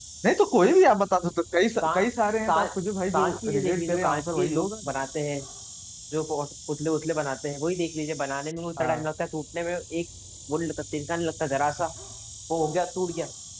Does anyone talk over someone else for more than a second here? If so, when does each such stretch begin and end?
3.1-4.7

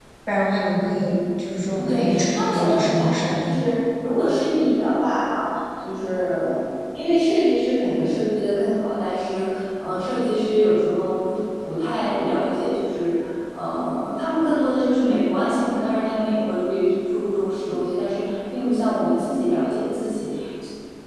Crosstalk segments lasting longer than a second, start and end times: 1.9-3.4

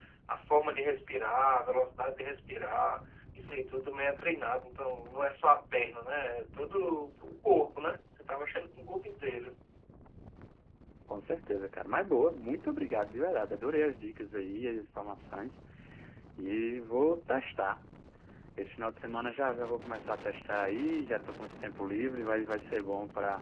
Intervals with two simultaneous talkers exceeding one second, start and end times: none

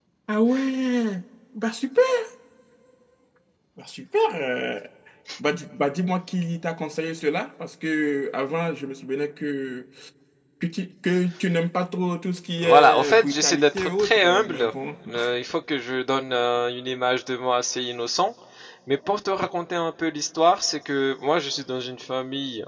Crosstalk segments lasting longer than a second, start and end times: 12.6-14.7

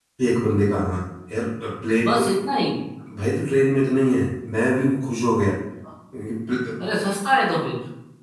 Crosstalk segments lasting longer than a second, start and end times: none

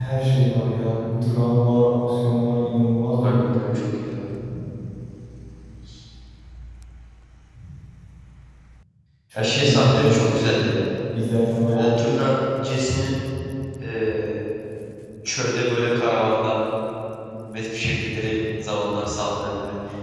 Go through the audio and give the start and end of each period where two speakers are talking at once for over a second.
9.3-10.6

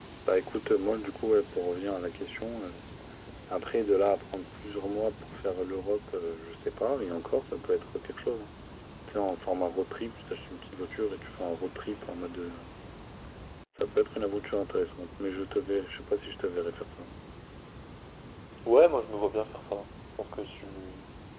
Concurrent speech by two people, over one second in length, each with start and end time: none

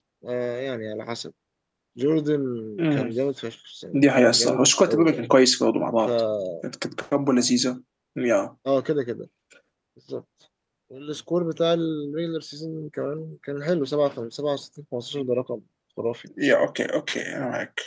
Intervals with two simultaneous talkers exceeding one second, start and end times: 3.9-5.3

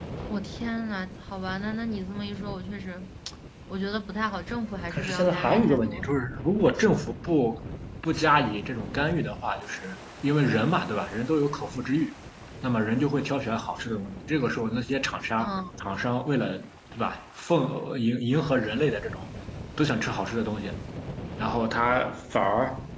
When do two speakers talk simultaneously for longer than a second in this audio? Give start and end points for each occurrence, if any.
4.9-6.1

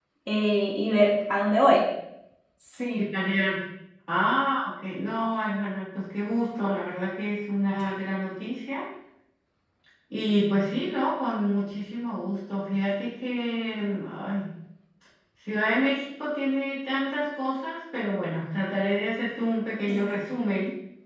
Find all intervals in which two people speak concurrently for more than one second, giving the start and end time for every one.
none

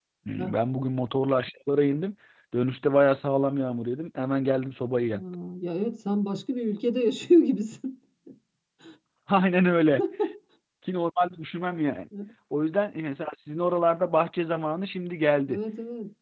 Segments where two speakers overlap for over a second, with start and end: none

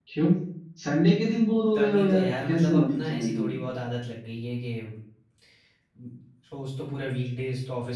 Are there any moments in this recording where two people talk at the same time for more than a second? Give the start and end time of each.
1.7-3.6

